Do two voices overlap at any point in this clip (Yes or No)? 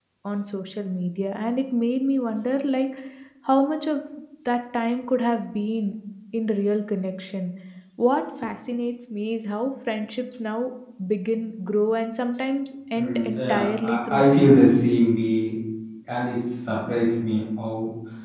Yes